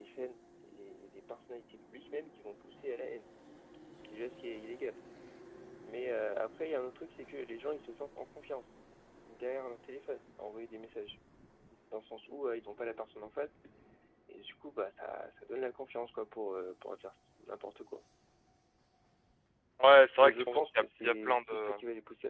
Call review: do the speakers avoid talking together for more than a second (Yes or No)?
No